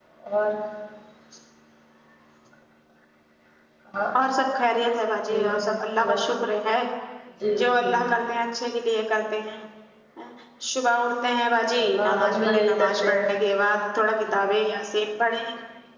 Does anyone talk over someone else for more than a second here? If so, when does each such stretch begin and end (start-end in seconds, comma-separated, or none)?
11.9-13.4